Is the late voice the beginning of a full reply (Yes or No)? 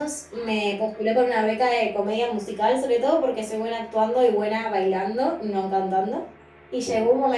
No